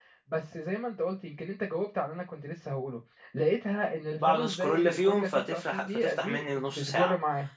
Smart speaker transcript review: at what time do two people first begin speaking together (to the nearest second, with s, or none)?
4 s